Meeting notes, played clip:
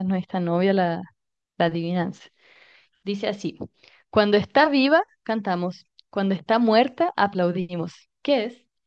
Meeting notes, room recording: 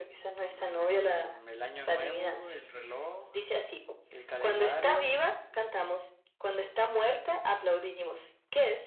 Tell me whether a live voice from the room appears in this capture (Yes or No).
Yes